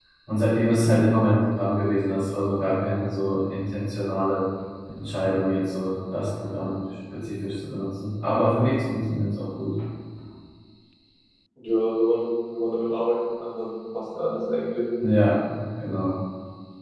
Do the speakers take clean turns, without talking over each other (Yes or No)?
Yes